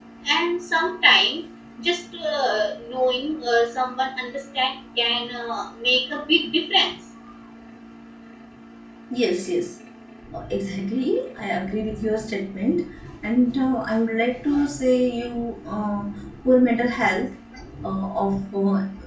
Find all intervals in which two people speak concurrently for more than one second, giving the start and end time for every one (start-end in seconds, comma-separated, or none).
none